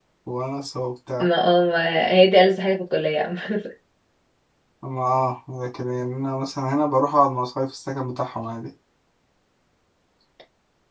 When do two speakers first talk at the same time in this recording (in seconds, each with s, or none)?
none